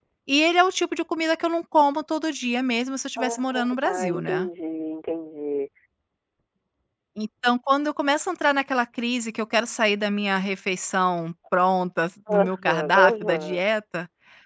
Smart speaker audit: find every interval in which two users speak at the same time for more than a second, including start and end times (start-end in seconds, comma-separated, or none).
3.2-4.5, 12.4-13.6